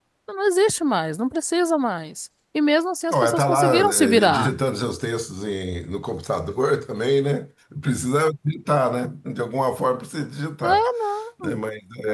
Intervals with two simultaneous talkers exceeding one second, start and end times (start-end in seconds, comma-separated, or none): 3.1-4.5